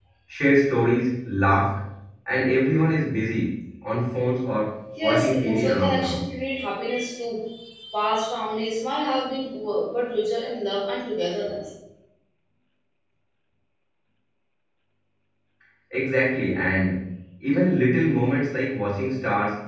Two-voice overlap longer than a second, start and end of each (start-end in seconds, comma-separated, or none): 5.0-6.2